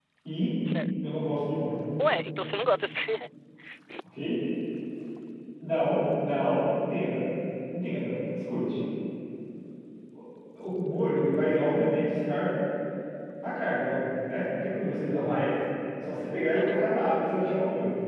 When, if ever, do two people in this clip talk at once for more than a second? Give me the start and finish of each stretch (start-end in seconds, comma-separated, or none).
none